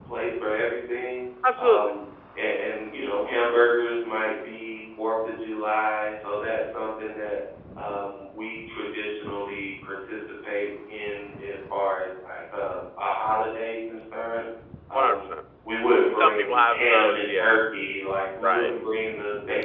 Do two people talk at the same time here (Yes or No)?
Yes